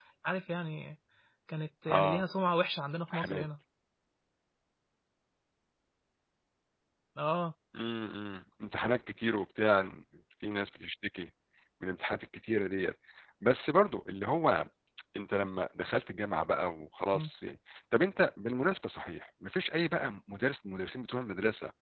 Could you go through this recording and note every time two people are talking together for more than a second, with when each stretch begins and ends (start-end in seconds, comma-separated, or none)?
none